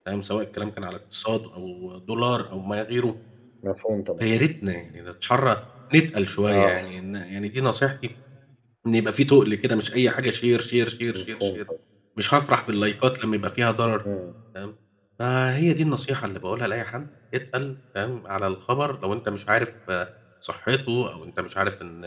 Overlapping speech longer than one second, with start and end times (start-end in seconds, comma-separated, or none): none